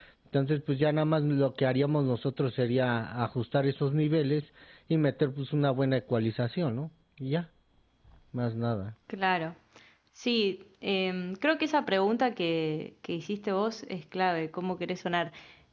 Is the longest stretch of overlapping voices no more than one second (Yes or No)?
Yes